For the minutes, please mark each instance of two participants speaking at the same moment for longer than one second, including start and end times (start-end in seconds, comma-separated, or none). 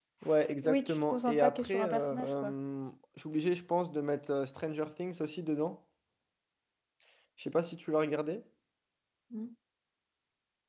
0.6-2.5